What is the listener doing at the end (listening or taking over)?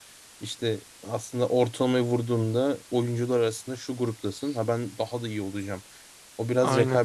listening